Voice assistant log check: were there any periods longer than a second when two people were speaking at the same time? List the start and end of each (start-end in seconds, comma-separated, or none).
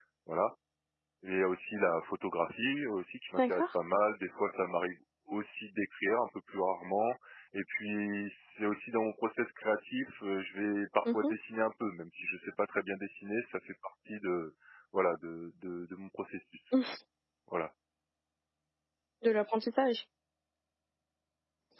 none